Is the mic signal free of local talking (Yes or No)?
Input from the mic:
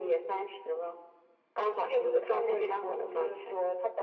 Yes